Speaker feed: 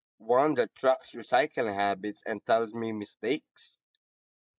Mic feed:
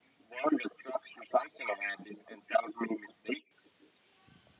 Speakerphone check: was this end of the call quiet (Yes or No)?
Yes